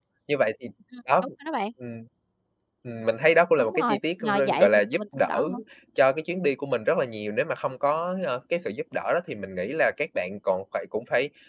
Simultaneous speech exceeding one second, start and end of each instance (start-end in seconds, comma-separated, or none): 3.6-5.4